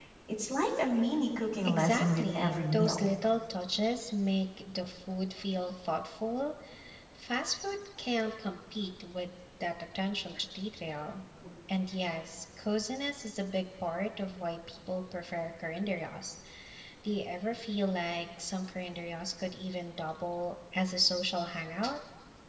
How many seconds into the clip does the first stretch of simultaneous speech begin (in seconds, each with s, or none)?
1.6 s